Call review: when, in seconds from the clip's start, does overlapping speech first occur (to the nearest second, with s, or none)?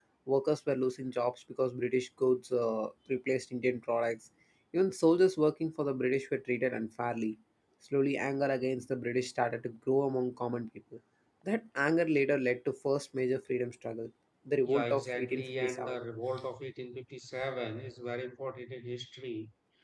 15 s